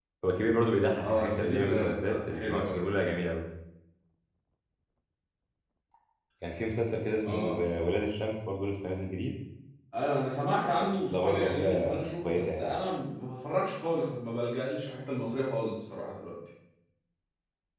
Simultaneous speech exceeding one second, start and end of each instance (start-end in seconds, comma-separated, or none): 1.0-2.8, 10.7-12.6